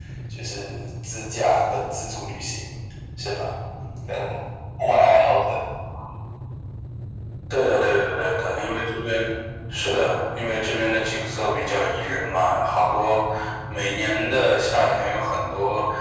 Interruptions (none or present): none